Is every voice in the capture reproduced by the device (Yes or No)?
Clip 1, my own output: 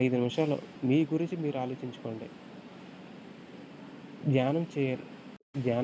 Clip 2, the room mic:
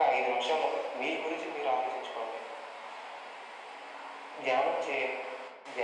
Yes